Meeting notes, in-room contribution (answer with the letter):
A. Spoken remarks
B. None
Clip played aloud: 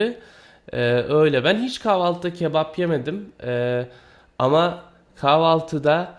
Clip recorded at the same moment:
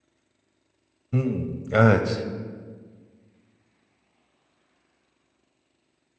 A